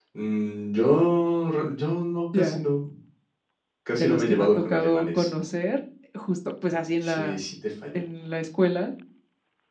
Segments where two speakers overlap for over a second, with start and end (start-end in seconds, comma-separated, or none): 3.9-5.3